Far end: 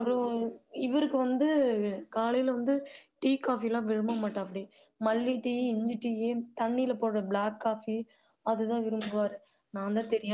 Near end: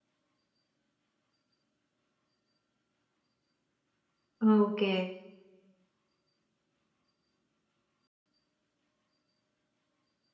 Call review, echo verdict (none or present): none